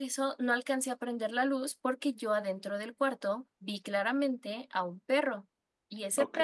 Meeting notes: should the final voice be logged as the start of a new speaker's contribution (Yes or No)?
No